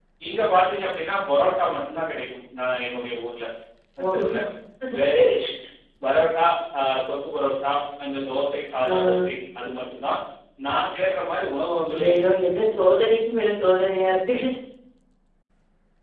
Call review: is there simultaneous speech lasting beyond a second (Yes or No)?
No